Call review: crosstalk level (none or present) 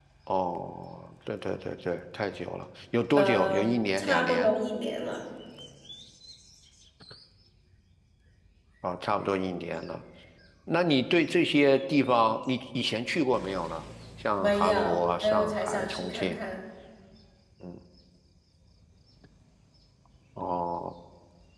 present